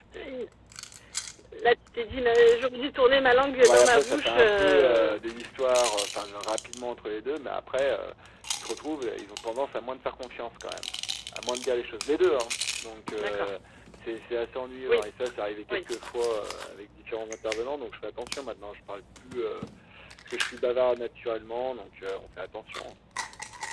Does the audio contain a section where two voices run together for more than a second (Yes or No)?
Yes